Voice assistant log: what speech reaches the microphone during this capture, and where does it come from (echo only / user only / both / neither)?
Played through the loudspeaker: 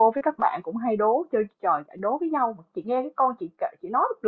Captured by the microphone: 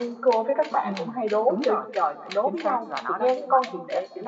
both